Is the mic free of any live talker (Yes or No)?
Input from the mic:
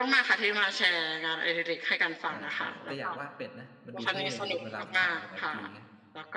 No